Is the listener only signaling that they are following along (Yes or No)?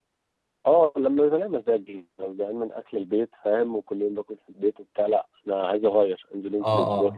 No